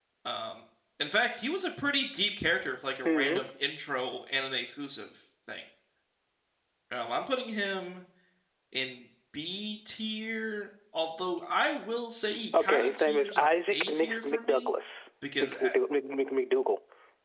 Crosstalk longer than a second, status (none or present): present